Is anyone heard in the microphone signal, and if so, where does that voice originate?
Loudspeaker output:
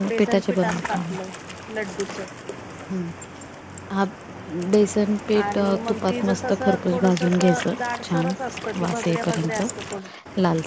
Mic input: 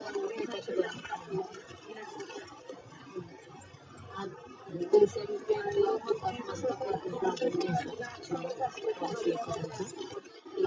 echo only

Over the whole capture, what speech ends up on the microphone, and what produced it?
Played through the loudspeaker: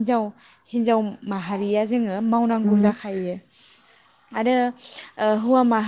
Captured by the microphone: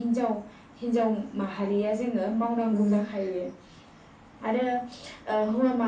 echo only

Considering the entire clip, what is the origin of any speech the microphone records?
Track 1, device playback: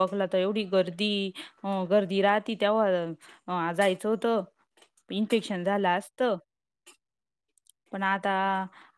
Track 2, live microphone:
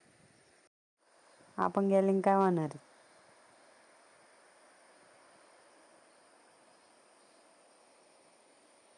user only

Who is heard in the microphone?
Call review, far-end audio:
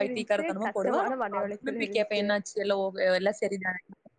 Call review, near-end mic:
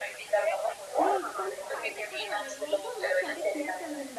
both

